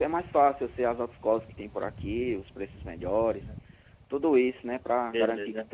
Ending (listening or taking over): listening